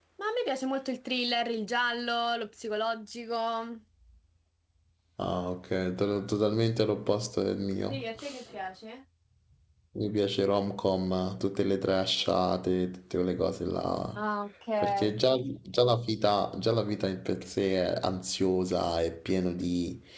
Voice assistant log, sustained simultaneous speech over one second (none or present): none